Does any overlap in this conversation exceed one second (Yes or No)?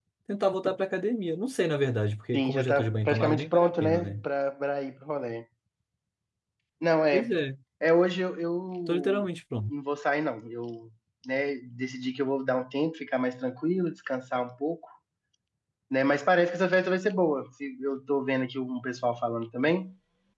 Yes